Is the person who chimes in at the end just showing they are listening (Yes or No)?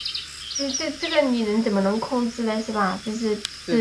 Yes